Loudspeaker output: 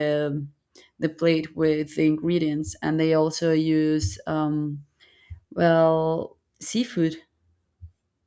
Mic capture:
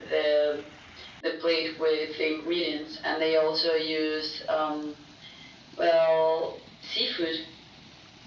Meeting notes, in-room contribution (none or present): none